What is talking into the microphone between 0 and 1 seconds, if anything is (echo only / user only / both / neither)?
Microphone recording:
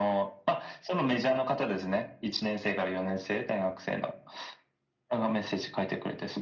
echo only